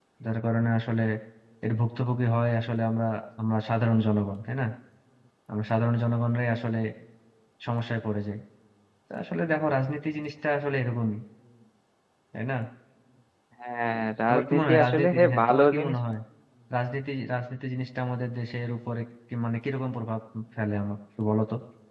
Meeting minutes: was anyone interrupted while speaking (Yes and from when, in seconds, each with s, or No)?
Yes, from 14.3 s